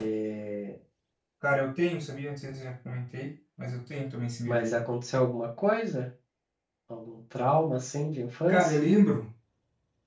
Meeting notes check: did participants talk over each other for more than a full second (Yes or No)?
No